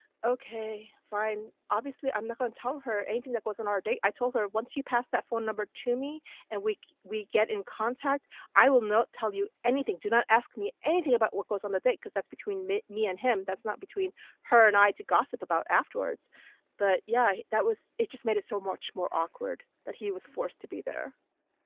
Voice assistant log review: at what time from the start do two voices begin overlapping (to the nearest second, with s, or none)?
none